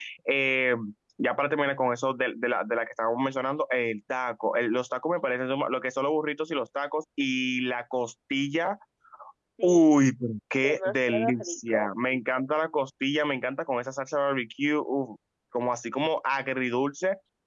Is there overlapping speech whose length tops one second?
Yes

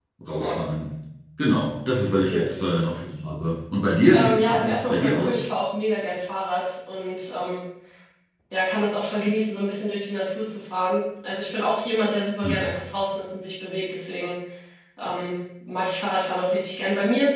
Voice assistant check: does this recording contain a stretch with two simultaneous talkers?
Yes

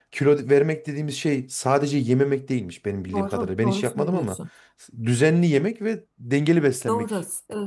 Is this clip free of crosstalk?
No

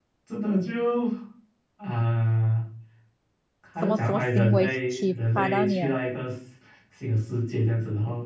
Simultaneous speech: Yes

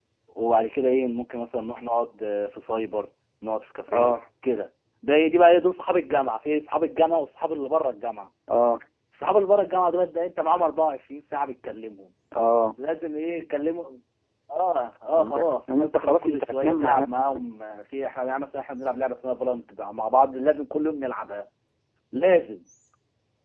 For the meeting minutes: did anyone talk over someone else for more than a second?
Yes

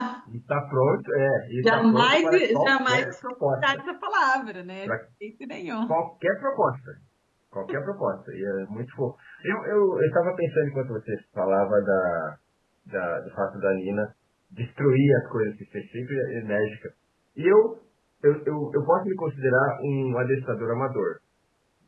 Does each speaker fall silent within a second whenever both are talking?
No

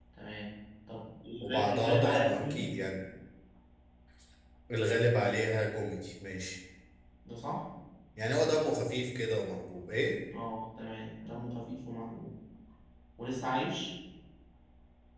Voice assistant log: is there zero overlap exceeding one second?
No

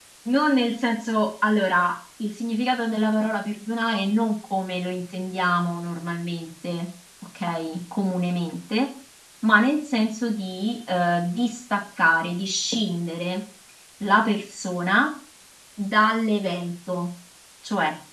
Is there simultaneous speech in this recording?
No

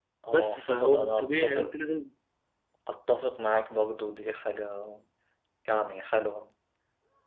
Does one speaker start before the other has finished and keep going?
Yes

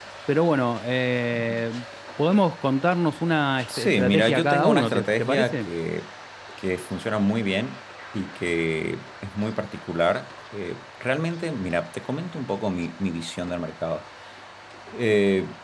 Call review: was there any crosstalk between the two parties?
Yes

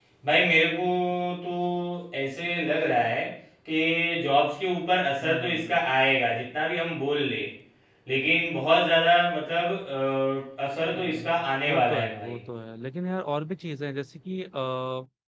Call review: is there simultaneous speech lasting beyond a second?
Yes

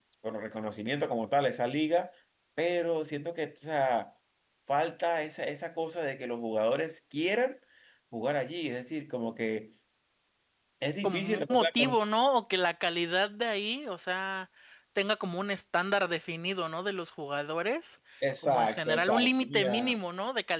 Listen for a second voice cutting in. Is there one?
Yes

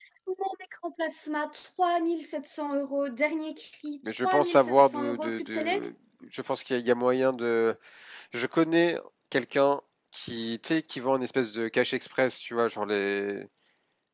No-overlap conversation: No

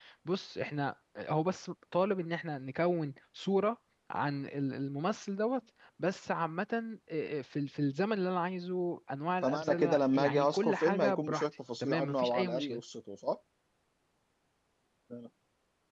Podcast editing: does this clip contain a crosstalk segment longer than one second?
Yes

